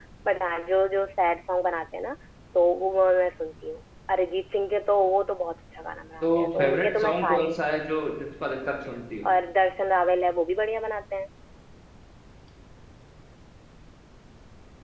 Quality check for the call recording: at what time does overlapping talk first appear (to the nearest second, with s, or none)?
6 s